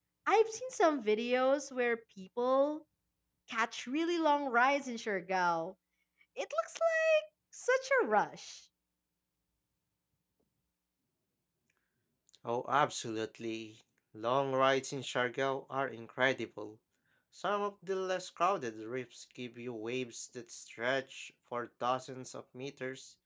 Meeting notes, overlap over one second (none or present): none